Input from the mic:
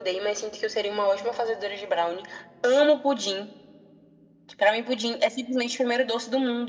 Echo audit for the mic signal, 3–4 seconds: echo only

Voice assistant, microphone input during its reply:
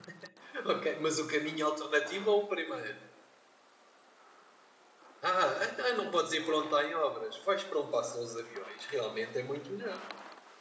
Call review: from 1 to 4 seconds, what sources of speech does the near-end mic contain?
user only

